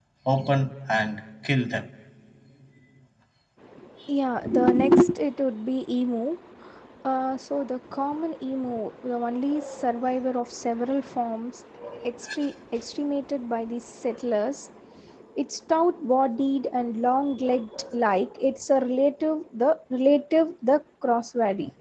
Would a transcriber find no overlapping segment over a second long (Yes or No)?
Yes